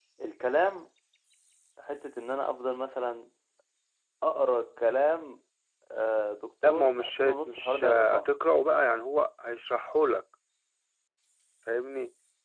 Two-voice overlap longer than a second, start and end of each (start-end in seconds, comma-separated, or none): 6.7-8.3